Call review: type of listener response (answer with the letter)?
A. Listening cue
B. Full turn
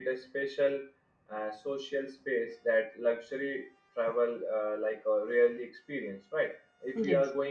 A